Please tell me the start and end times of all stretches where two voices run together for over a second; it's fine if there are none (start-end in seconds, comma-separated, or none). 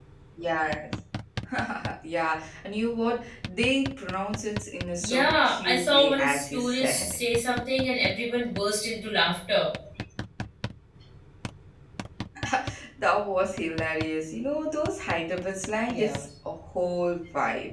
5.0-7.2